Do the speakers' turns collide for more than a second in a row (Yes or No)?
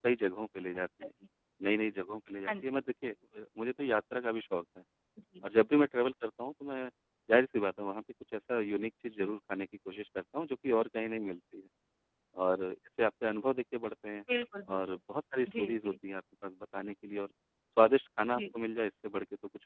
No